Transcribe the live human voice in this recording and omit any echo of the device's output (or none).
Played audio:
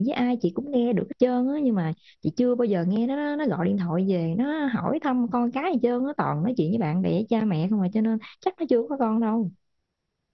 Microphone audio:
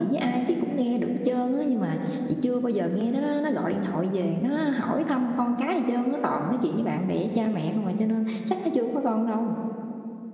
none